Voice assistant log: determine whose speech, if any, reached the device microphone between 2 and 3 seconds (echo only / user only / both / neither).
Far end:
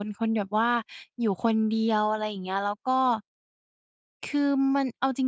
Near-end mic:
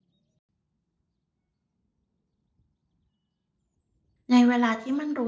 neither